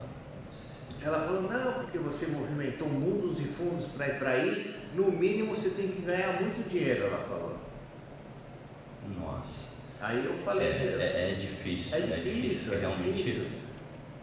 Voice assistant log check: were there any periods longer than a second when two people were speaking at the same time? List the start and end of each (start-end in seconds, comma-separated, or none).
11.9-13.4